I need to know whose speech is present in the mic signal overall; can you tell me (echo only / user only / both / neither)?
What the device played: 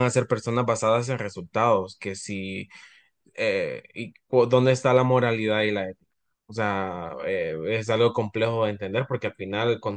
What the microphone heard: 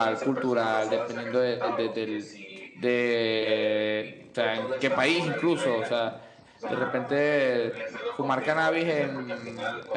both